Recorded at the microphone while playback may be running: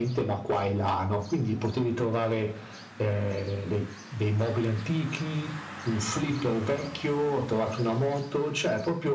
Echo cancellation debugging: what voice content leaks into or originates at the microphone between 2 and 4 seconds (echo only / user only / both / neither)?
echo only